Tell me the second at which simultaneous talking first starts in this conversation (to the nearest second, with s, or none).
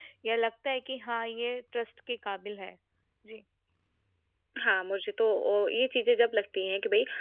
none